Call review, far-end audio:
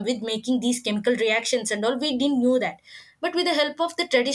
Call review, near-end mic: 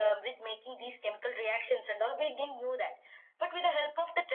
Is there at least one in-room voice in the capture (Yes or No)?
No